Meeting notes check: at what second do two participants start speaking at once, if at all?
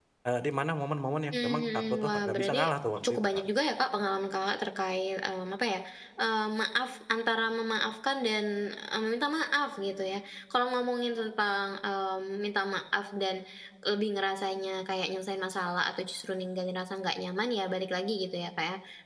1.3 s

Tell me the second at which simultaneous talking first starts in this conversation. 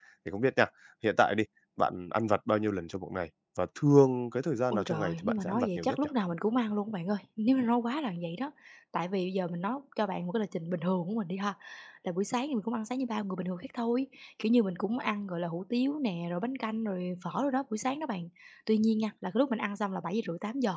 4.7 s

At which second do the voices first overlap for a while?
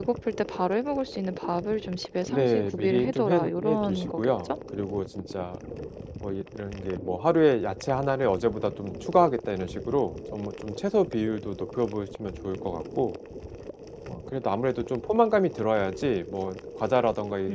2.3 s

